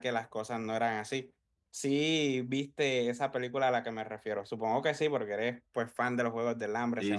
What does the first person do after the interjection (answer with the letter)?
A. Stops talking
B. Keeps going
A